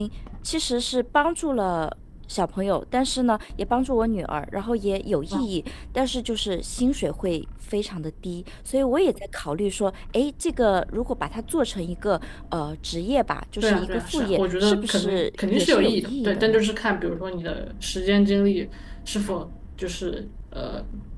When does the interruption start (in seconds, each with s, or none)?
13.6 s